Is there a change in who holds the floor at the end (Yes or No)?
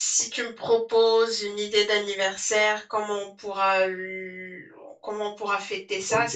Yes